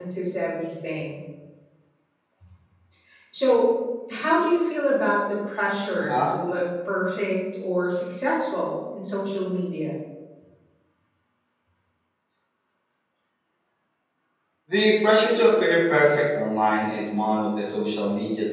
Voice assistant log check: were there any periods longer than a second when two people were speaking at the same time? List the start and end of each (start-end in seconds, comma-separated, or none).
none